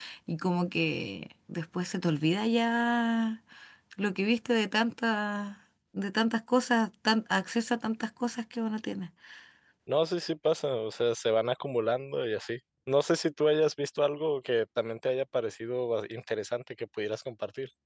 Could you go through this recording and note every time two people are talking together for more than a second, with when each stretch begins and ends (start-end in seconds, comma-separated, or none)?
none